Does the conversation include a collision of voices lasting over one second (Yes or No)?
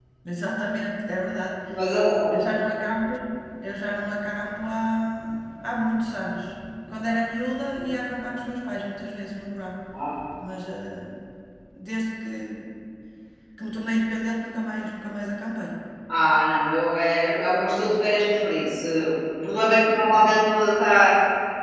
No